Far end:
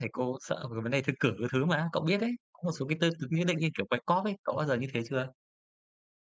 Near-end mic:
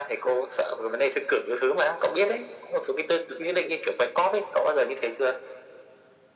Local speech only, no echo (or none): none